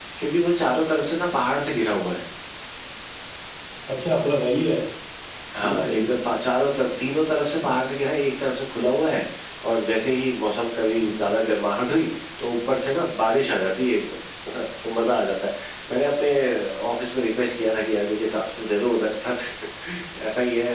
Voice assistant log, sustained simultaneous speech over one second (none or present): none